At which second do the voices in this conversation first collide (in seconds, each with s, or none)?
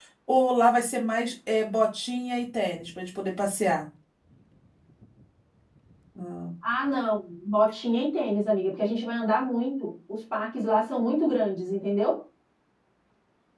none